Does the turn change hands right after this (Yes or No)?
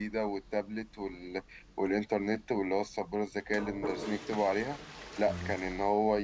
No